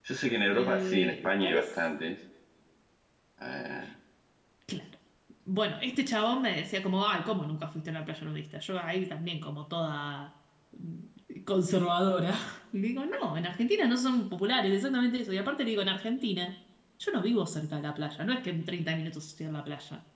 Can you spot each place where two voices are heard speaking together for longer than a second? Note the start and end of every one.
0.5-1.7

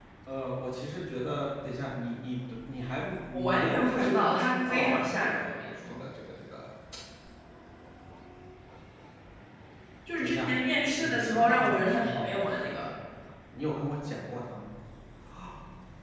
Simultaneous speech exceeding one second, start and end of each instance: 3.3-6.0, 11.0-13.0

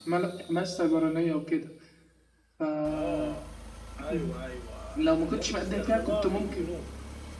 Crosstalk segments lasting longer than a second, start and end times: 5.0-6.7

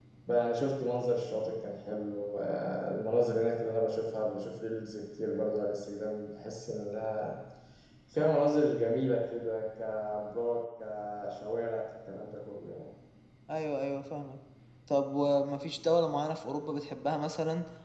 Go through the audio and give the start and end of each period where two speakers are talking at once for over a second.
none

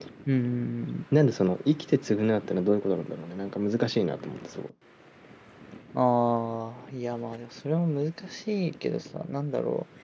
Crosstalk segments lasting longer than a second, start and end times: none

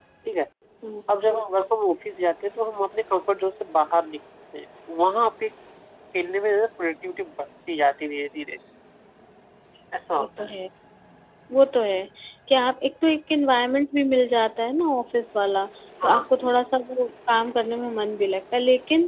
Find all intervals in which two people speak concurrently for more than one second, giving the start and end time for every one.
none

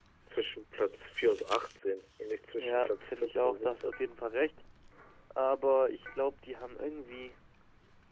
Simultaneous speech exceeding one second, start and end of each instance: 2.6-3.9

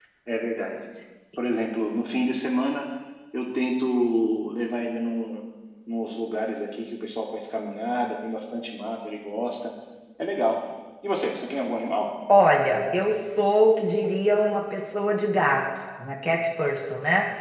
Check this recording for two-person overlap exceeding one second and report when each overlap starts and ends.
none

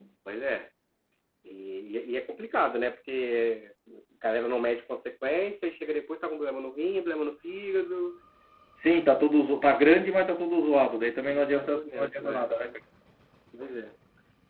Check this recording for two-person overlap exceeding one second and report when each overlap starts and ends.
11.3-12.5

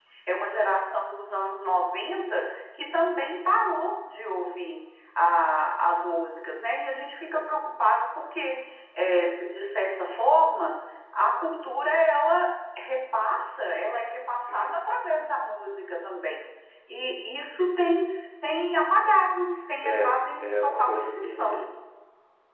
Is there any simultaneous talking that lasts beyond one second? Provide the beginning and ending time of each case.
19.8-21.6

